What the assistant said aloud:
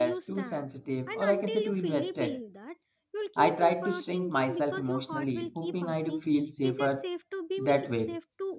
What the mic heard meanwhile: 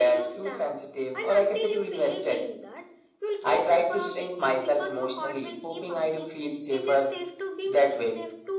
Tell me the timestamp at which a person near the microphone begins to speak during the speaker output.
none

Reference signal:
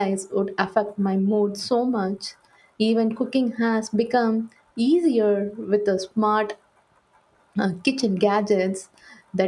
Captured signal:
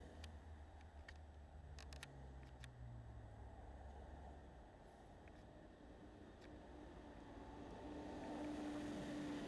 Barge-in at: none

